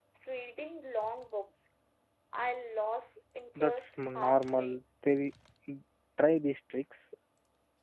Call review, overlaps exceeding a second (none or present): present